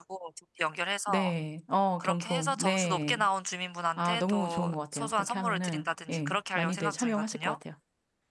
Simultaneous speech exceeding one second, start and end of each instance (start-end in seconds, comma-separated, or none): 2.0-3.2, 4.0-7.6